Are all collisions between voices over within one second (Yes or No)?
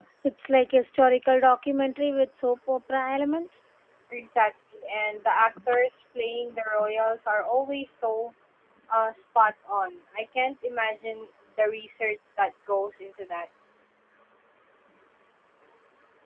Yes